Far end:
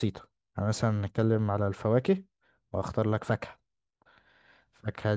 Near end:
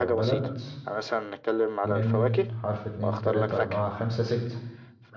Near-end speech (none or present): present